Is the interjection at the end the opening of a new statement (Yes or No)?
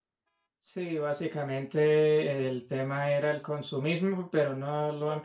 No